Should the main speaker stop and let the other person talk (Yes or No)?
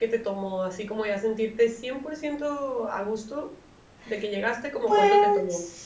Yes